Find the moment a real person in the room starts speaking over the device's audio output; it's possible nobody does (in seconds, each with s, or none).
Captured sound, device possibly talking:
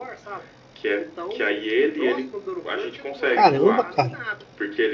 3.3 s